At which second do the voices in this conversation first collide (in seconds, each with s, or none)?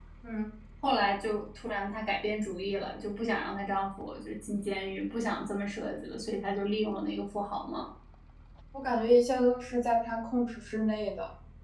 none